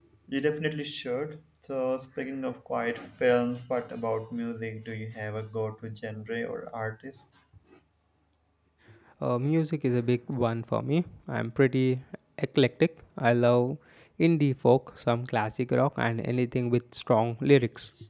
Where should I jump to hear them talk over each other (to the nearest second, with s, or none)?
none